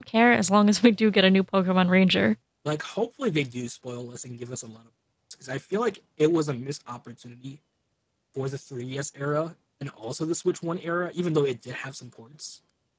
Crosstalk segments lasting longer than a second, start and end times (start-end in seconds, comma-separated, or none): none